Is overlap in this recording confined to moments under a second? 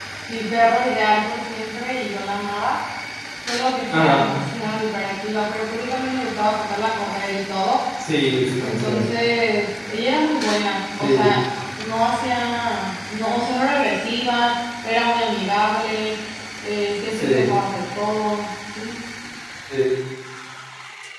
Yes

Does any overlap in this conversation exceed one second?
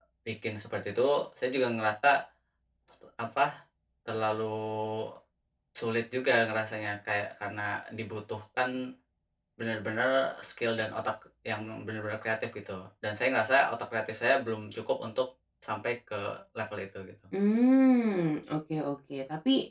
No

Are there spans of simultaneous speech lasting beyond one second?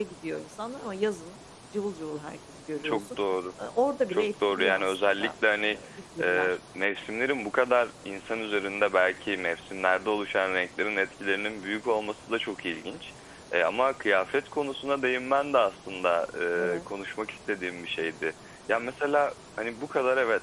Yes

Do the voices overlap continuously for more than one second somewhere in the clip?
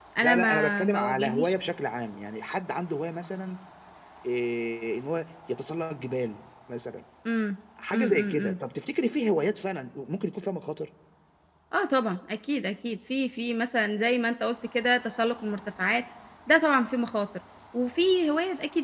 Yes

